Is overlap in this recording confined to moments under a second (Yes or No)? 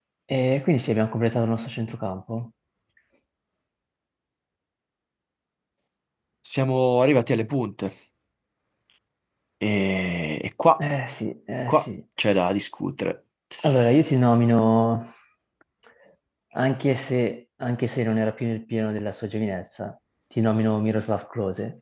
Yes